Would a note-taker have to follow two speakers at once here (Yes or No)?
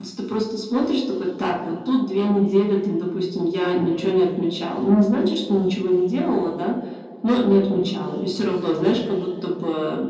No